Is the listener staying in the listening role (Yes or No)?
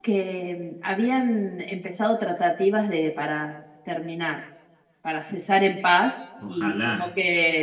Yes